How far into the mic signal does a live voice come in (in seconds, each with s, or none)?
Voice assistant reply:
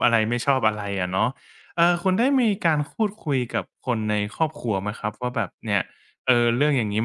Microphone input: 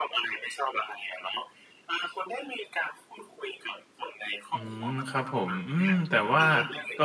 4.5 s